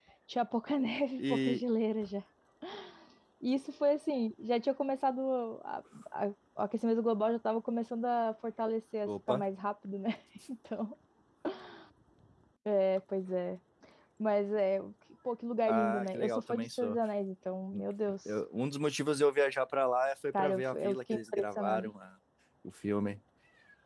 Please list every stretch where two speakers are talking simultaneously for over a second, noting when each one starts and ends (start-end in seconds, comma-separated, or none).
15.7-17.0, 20.4-21.9